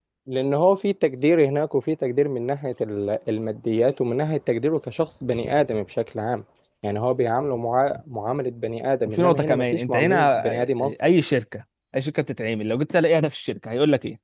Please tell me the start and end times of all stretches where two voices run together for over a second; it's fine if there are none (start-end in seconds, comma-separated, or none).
9.1-10.9